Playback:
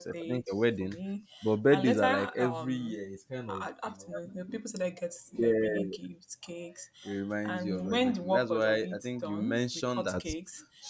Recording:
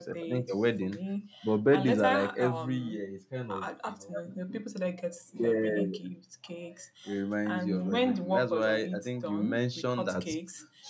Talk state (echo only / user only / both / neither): echo only